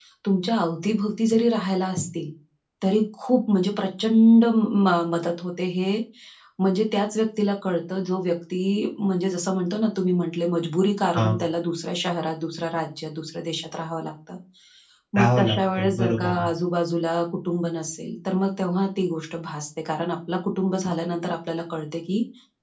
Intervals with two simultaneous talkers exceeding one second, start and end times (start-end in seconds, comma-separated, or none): 15.2-16.5